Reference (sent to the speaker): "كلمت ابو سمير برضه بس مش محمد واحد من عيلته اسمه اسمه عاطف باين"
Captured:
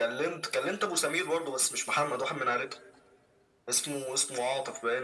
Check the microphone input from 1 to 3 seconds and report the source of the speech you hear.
echo only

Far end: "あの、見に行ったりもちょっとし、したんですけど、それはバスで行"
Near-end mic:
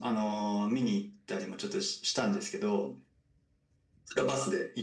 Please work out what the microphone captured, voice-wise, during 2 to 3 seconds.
echo only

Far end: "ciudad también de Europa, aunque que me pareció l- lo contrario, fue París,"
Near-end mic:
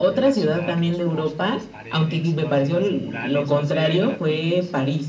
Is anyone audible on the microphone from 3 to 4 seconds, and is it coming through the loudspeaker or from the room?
both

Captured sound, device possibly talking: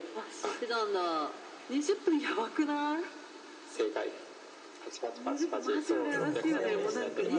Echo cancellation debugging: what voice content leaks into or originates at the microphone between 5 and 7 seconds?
both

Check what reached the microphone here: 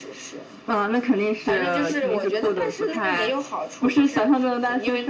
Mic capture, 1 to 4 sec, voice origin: echo only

